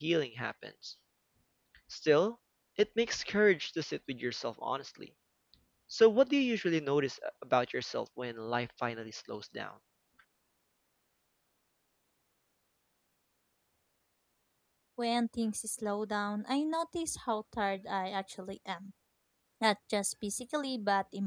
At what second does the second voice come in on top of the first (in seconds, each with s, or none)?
none